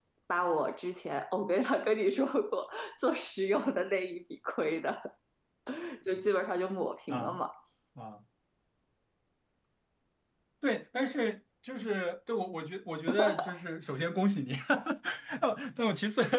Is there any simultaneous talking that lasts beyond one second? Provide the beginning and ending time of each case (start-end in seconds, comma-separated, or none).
none